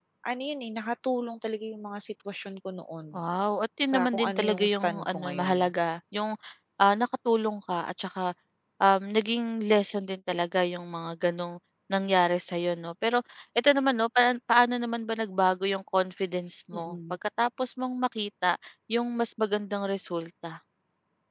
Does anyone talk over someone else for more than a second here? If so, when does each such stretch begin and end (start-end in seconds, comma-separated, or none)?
3.8-5.7